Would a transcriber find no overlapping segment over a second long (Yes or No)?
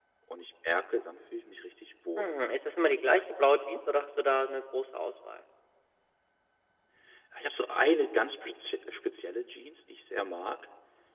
Yes